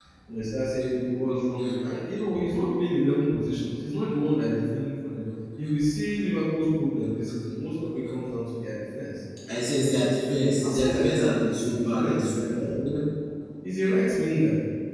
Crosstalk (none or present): present